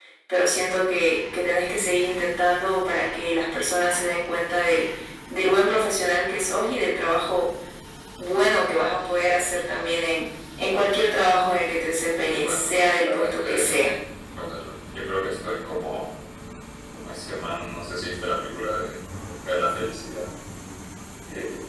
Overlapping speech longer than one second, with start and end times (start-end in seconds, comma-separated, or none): 12.2-13.8